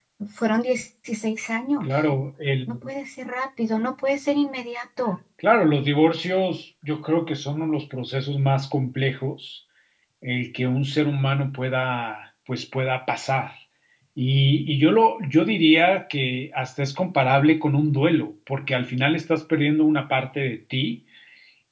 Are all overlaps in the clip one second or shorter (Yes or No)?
Yes